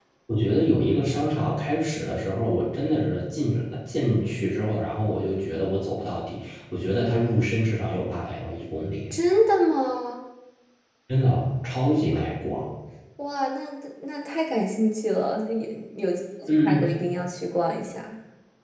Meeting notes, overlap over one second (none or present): none